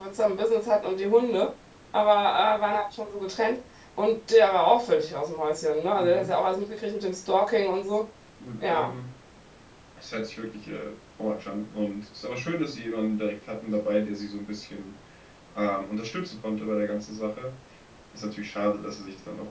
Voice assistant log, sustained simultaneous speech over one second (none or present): none